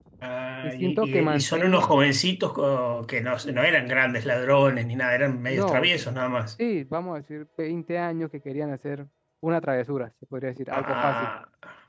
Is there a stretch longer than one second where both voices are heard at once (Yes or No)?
Yes